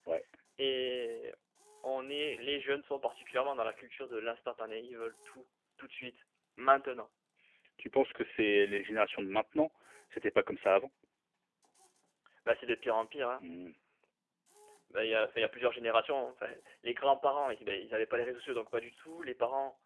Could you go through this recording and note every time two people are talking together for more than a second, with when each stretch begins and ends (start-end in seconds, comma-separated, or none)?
none